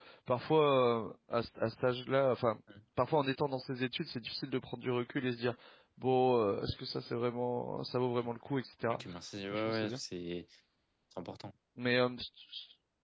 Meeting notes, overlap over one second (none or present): none